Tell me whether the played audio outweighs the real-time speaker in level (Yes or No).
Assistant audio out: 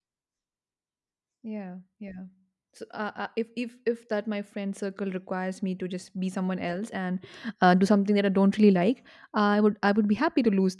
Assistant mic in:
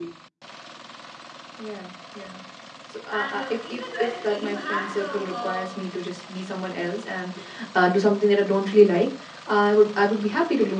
Yes